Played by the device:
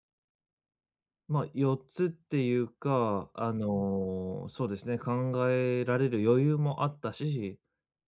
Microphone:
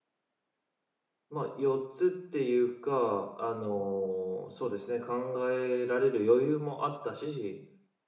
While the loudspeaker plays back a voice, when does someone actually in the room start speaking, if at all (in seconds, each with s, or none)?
none